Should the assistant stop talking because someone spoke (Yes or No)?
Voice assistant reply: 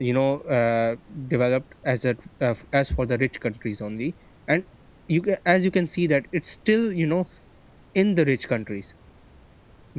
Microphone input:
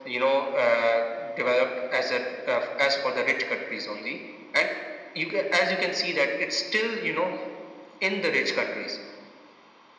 No